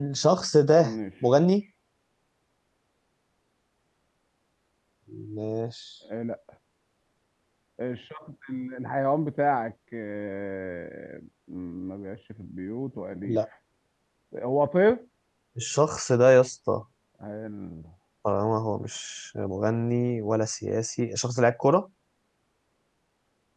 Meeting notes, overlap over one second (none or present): none